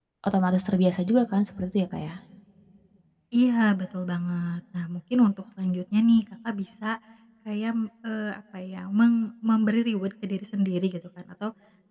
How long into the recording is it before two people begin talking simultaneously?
none

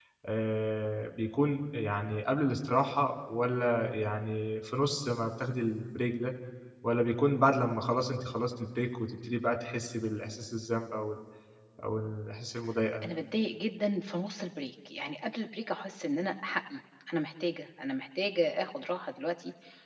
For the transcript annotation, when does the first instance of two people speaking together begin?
none

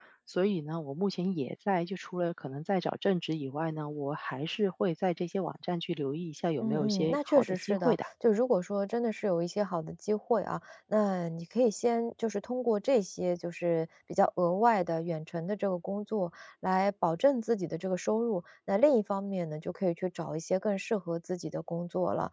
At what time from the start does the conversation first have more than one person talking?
6.6 s

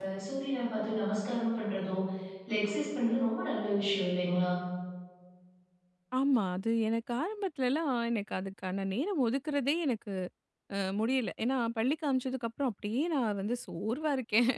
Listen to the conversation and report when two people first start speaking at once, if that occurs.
none

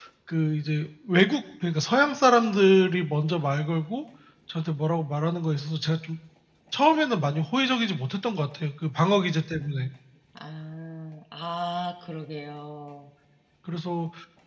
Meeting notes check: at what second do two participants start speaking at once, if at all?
none

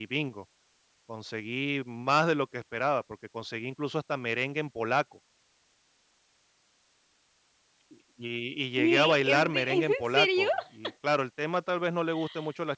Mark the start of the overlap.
8.8 s

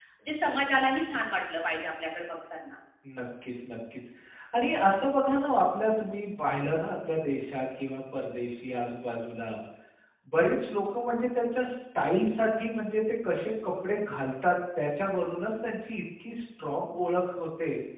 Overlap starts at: none

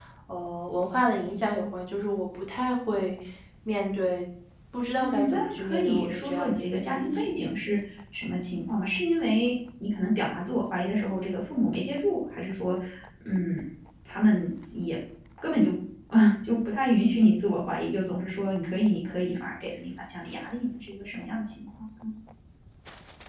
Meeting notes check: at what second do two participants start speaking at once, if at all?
5.0 s

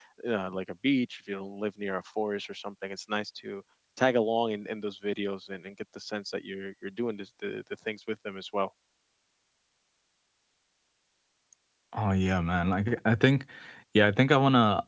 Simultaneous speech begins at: none

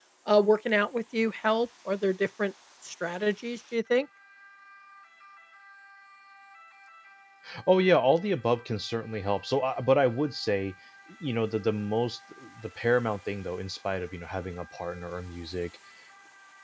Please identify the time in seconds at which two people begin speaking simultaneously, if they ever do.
none

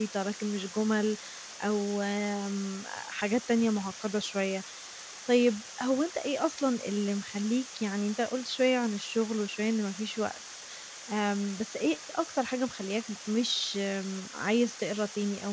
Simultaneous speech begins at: none

